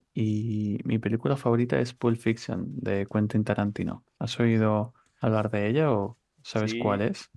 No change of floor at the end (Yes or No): No